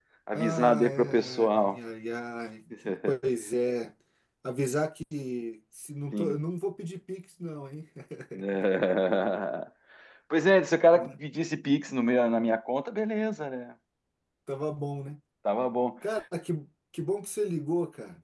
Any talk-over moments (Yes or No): Yes